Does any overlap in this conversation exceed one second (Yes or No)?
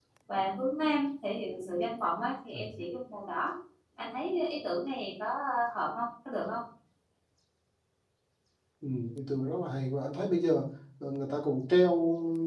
No